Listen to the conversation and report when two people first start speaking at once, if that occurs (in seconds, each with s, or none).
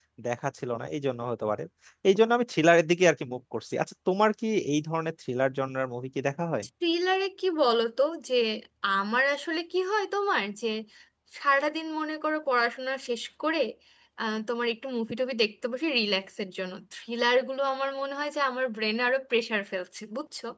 none